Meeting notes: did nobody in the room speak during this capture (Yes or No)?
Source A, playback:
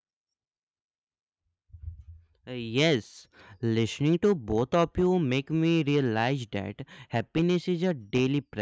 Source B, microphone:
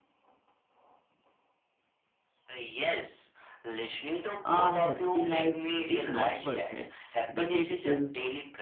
No